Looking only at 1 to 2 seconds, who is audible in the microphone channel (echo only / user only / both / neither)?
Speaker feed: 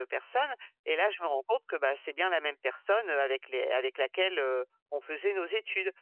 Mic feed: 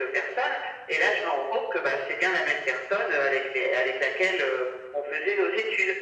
echo only